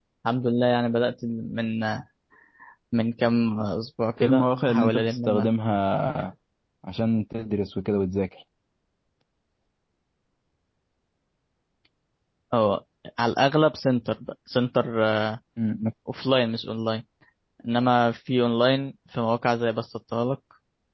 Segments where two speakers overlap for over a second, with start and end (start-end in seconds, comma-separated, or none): 4.2-5.5